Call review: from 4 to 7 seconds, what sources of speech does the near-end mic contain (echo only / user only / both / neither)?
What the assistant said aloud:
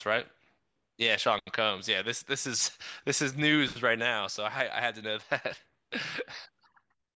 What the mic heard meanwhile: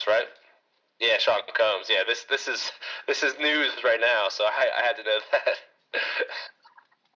echo only